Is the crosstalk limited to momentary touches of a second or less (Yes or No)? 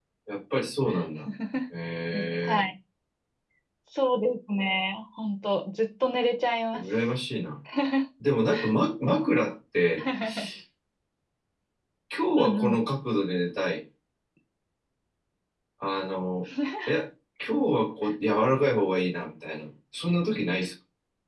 Yes